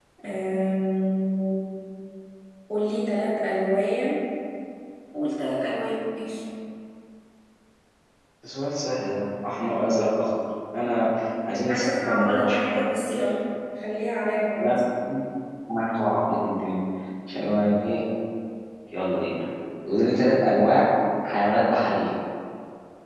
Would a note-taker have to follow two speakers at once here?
Yes, from 11.5 s

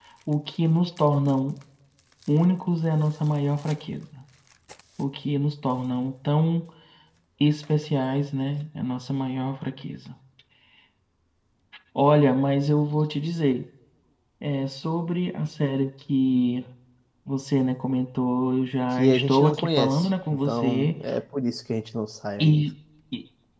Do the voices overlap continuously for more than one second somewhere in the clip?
Yes, from 19.0 s

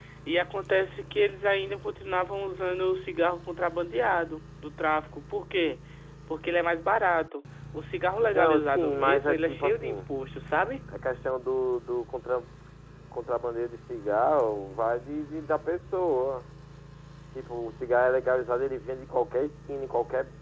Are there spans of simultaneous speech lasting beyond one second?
Yes, from 8.3 s

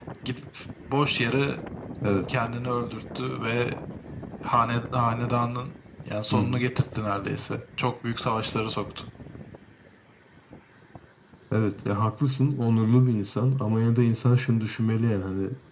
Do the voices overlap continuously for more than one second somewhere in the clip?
No

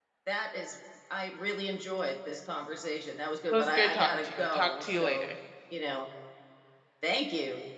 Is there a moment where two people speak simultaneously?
Yes, from 3.5 s

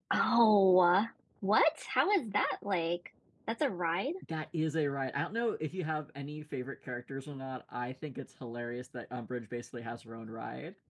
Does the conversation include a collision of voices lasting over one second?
No

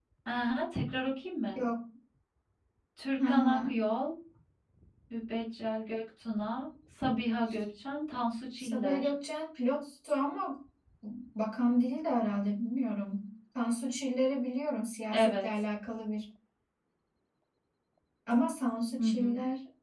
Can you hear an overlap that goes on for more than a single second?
No

